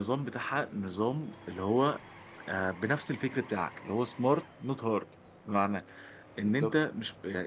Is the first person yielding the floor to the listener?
No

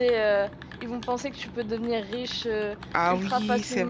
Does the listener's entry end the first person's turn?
Yes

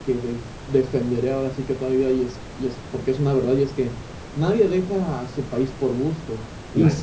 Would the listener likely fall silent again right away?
Yes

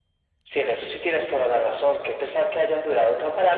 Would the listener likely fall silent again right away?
No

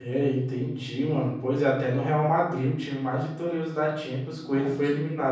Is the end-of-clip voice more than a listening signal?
Yes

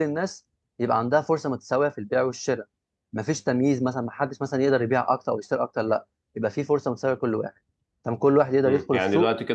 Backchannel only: No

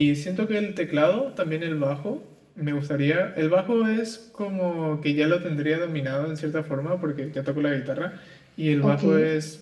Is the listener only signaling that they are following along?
Yes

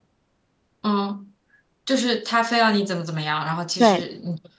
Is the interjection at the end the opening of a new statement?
Yes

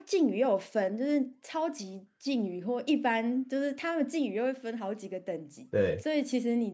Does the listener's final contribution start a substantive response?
No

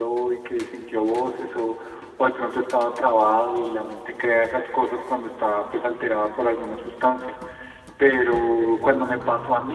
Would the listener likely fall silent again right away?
Yes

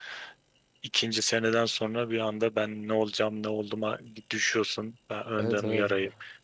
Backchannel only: No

